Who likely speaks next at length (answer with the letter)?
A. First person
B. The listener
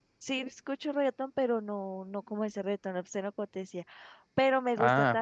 A